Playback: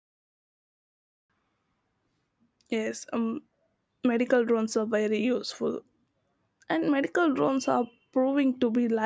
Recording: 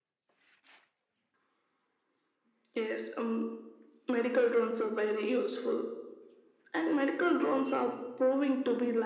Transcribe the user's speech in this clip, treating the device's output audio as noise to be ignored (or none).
none